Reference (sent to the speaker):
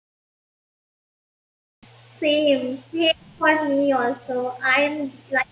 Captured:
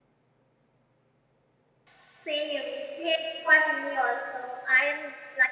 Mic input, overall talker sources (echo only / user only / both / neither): echo only